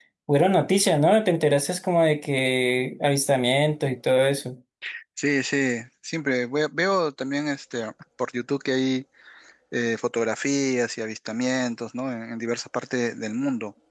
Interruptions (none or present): none